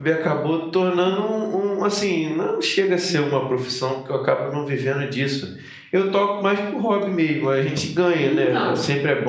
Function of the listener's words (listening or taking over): listening